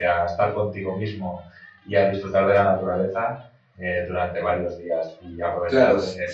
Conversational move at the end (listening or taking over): taking over